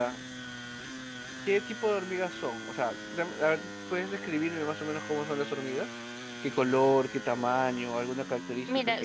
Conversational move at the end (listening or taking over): taking over